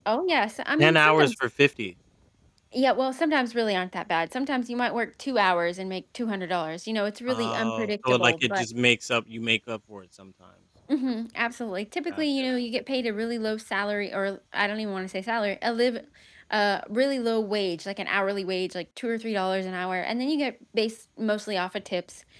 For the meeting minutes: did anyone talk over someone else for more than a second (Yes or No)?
Yes